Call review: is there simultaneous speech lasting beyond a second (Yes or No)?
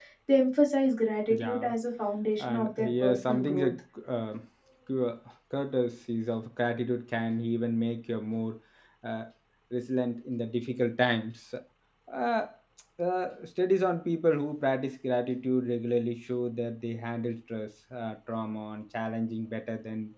Yes